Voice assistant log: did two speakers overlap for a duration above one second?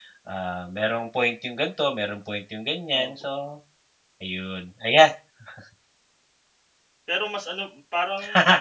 No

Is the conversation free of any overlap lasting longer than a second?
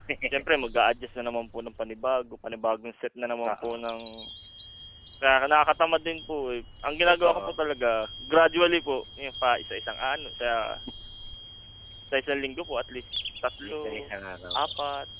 Yes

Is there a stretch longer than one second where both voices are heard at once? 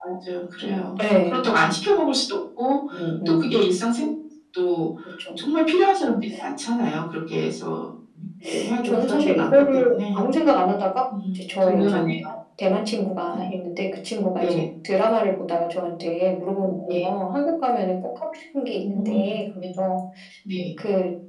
Yes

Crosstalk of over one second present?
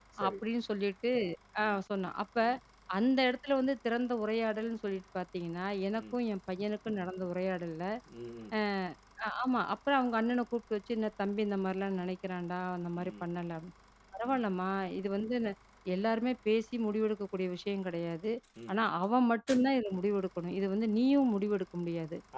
No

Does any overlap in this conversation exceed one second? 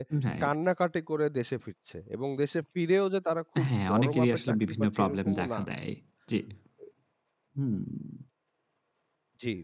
Yes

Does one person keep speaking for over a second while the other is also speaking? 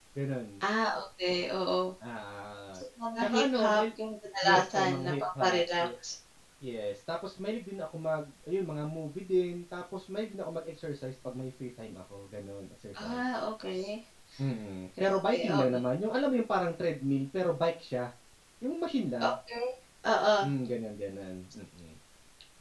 Yes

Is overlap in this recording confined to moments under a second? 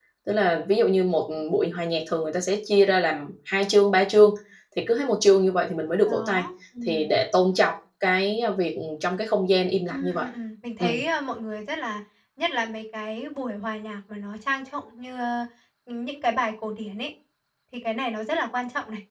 Yes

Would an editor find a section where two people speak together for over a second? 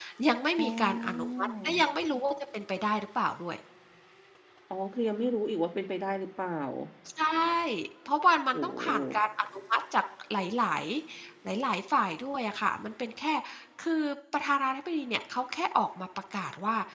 Yes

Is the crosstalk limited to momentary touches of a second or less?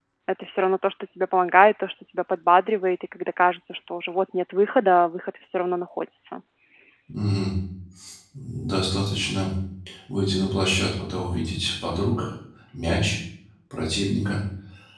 Yes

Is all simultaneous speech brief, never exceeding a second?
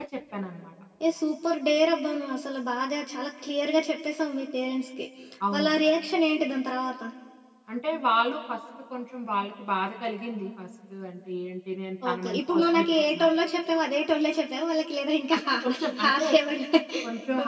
No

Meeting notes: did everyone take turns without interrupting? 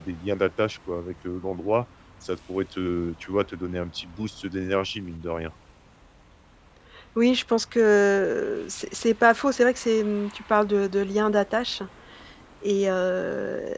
Yes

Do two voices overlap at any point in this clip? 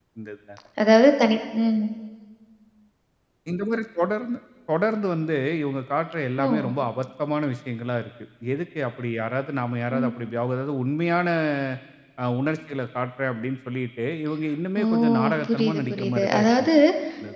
Yes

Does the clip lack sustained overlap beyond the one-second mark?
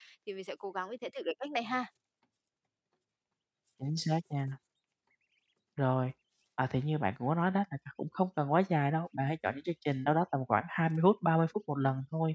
Yes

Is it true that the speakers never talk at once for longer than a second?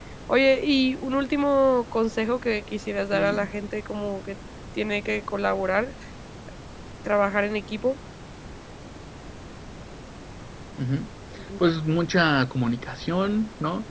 Yes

